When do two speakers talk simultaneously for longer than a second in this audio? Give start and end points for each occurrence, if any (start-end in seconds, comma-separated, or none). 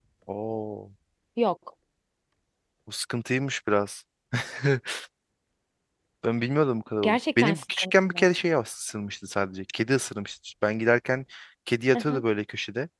7.0-8.2